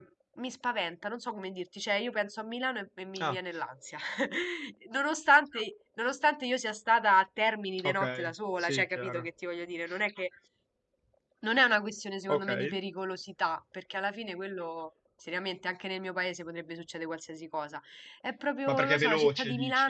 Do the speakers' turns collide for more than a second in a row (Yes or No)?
Yes